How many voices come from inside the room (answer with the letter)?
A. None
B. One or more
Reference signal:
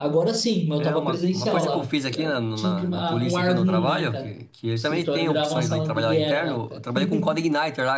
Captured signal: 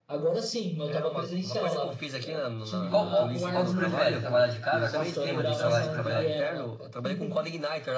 B